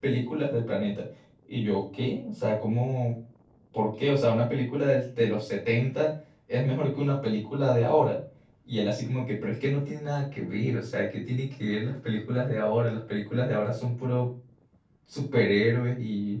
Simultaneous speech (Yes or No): No